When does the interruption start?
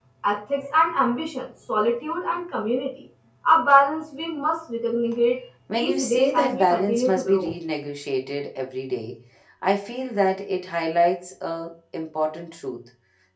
5.7 s

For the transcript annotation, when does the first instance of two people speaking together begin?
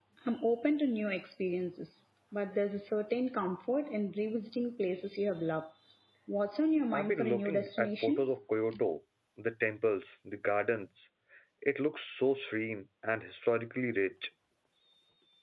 6.9 s

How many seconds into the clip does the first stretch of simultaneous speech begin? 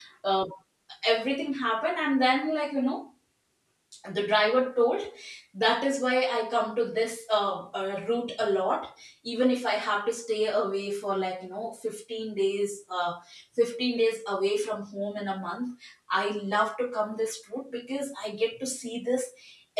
none

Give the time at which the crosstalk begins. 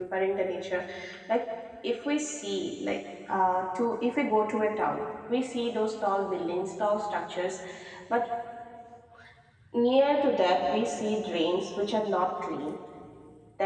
none

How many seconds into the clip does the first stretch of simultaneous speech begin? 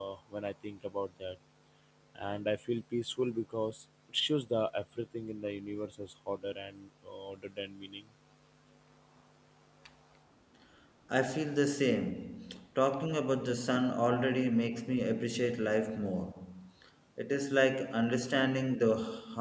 none

